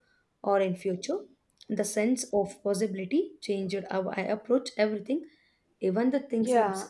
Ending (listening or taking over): taking over